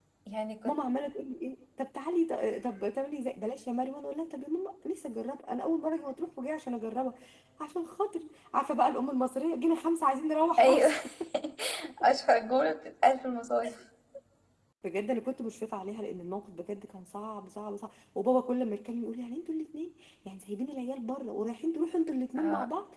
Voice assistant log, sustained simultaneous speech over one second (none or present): none